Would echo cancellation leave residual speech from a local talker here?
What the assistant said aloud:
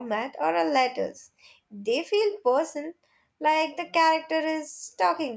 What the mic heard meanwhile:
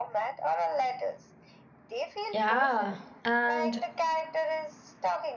Yes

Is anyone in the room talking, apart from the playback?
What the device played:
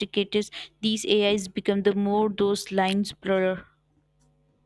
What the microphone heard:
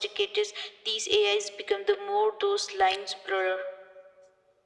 No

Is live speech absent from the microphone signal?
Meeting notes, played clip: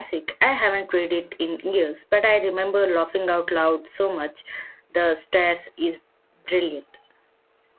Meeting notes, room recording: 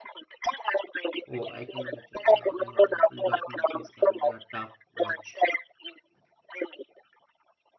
No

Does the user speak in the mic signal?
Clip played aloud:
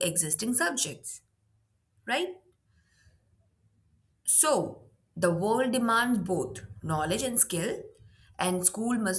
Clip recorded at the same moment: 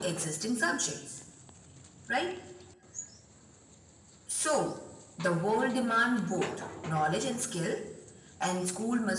No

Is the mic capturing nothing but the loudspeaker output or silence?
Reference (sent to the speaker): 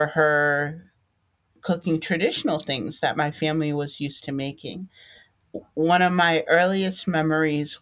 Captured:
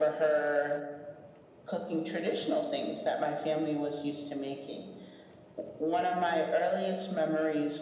Yes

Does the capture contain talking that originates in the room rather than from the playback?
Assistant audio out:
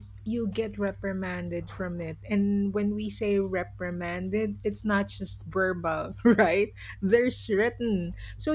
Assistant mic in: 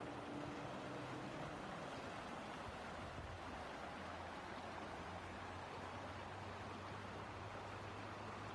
No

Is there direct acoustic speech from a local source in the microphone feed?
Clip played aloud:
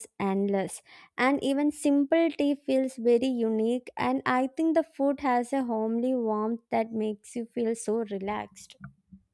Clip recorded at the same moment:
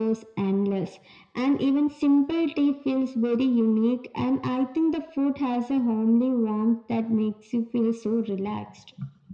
No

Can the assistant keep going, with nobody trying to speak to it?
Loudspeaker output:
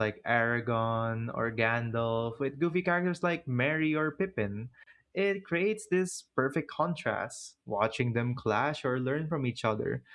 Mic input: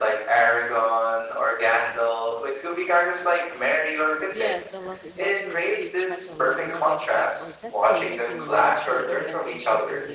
No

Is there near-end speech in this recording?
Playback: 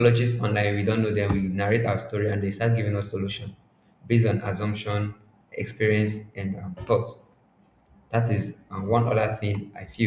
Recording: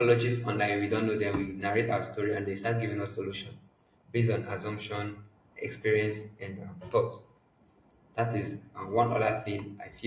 No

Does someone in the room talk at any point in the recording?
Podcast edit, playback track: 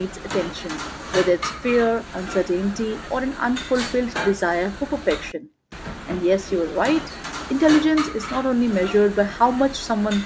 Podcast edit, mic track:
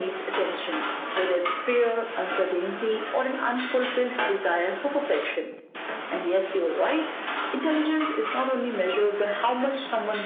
No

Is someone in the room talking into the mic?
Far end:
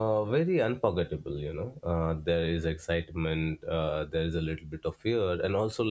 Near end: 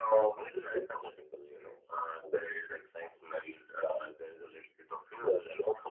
No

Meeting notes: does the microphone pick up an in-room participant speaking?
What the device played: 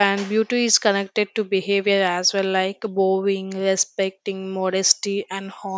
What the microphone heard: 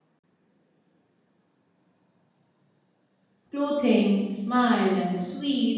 Yes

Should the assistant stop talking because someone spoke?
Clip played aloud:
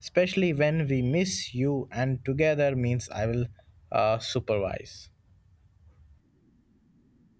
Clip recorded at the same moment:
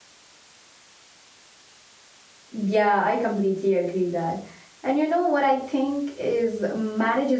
Yes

